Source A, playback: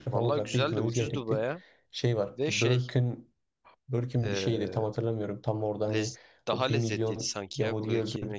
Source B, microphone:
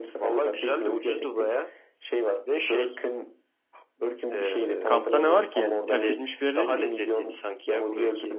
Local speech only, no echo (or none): Kampta ne var ki yani? Terk edilmiş bir yer değil mi?